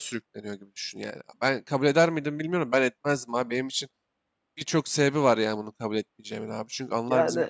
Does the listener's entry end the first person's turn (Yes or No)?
No